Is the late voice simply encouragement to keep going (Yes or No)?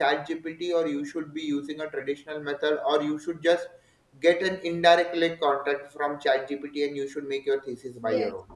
No